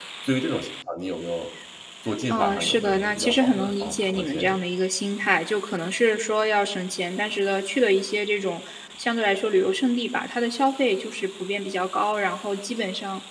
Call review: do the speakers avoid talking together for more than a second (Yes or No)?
No